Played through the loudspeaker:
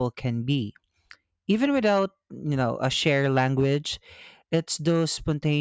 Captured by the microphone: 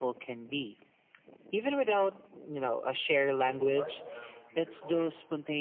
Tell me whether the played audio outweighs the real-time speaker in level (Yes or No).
Yes